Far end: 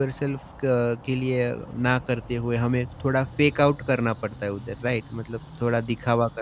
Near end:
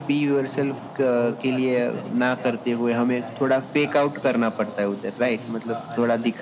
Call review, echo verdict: present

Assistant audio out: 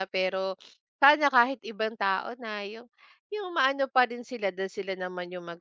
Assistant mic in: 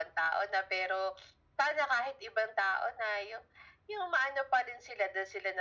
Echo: present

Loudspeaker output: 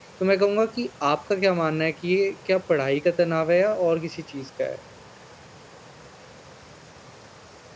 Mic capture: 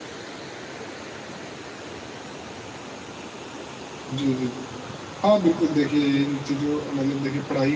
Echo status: none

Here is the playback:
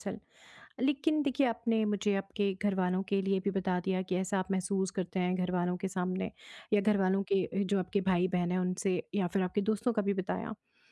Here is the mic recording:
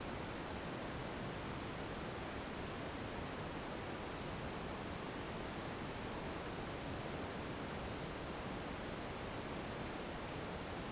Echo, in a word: none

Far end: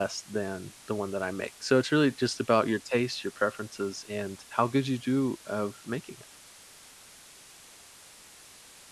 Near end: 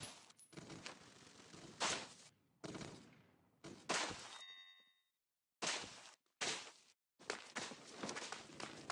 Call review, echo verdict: none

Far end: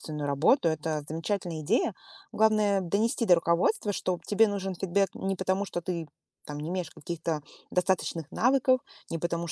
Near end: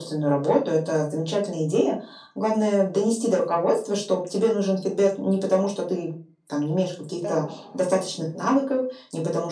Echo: present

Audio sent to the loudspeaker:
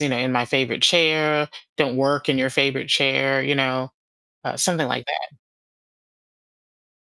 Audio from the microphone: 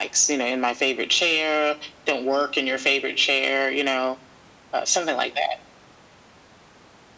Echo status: present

